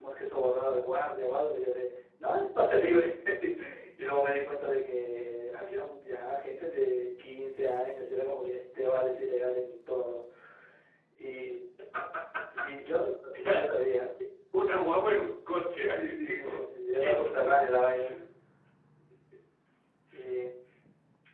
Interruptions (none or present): present